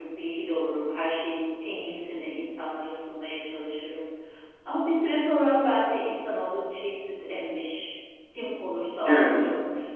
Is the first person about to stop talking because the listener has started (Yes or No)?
No